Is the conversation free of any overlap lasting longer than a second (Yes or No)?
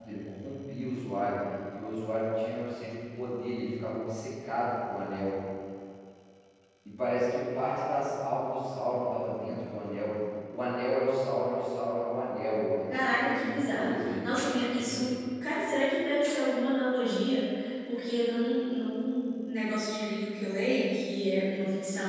No